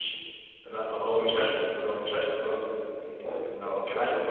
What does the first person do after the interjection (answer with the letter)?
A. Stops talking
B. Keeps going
B